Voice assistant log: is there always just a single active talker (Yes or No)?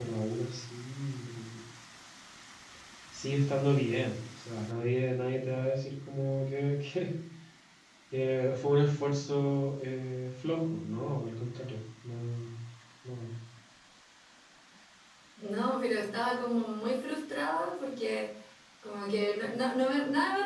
Yes